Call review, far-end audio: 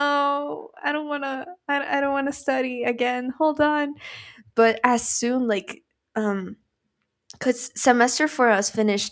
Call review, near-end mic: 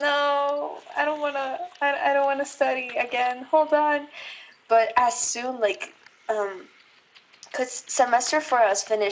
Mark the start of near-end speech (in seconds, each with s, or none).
none